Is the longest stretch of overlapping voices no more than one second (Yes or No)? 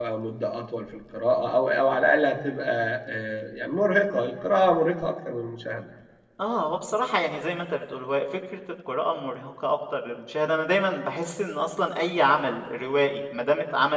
Yes